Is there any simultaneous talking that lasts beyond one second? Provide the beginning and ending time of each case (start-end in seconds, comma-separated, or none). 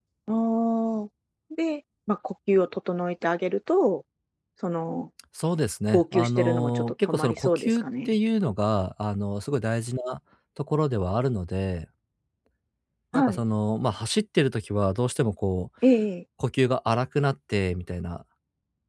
5.9-8.2